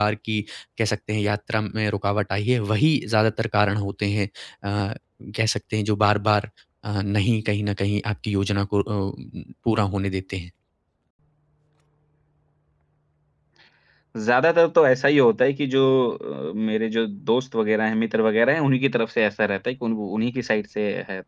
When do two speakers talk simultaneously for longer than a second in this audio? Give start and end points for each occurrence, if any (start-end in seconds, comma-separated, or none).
none